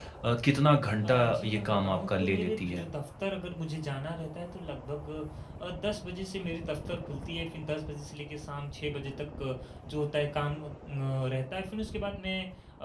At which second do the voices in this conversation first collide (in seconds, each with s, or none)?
1.0 s